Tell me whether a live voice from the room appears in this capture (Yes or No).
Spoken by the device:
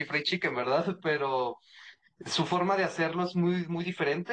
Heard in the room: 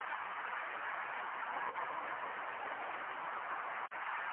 No